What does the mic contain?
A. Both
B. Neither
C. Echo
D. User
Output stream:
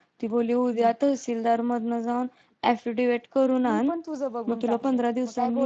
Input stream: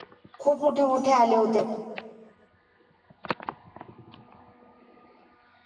D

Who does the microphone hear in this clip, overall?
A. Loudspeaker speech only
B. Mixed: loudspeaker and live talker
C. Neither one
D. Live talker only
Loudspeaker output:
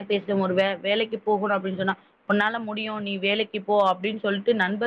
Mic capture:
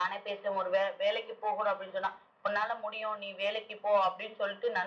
A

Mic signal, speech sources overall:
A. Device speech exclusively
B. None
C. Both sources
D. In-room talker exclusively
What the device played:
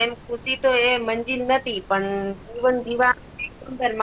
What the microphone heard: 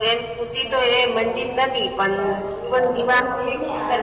C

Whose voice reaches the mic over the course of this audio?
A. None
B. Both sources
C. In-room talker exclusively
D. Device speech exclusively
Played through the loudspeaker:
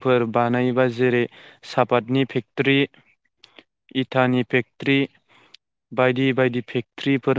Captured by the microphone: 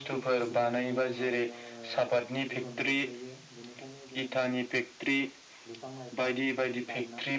B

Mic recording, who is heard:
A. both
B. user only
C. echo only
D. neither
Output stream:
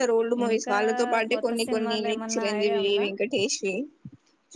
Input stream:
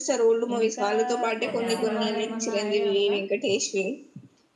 A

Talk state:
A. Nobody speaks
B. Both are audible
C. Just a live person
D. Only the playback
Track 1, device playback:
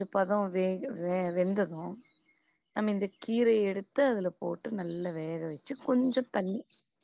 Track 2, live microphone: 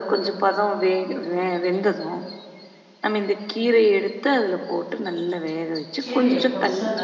B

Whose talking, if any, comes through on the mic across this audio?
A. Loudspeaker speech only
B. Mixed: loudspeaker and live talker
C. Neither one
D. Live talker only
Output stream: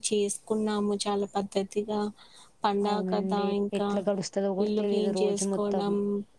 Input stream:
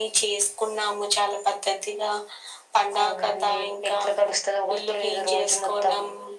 A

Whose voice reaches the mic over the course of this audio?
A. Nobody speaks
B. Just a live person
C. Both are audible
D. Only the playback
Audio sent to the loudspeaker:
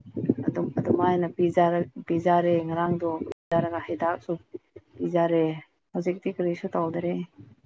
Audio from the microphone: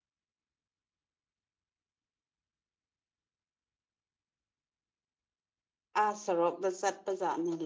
B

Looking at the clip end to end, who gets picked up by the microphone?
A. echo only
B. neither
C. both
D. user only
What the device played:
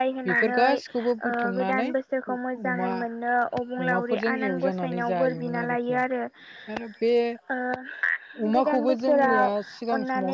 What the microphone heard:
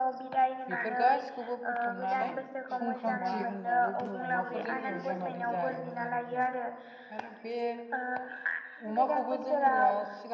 C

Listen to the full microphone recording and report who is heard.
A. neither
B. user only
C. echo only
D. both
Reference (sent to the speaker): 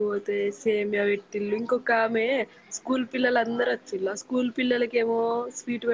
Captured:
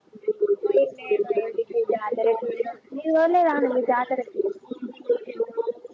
D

